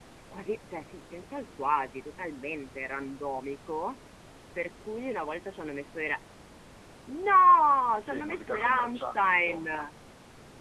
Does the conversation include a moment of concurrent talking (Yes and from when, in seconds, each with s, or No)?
Yes, from 8.0 s